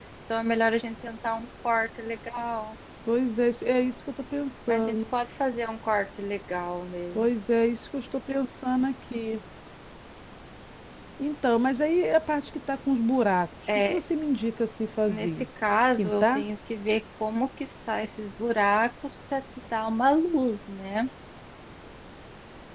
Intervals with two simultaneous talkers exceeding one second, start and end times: none

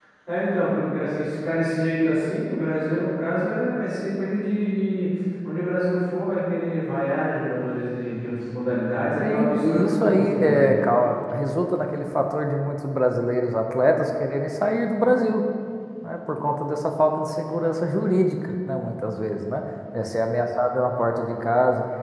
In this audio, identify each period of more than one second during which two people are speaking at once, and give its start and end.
9.2-10.7

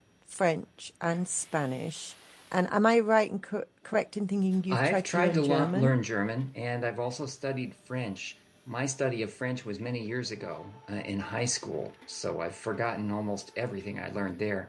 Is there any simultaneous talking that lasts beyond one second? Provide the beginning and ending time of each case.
4.7-5.9

